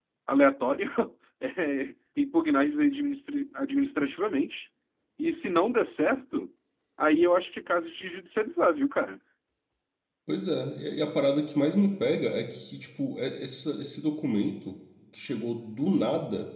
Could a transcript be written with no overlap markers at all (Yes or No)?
Yes